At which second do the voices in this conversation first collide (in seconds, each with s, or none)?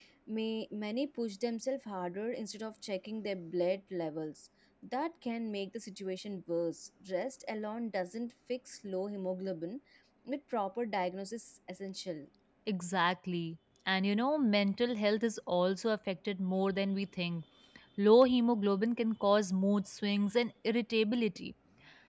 none